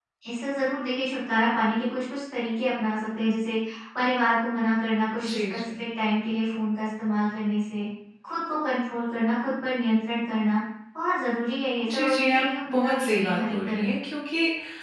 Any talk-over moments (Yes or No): Yes